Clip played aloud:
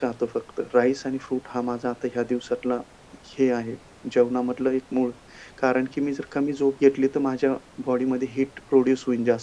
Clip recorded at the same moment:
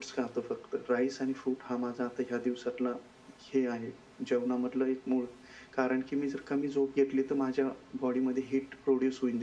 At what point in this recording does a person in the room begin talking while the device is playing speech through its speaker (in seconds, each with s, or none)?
none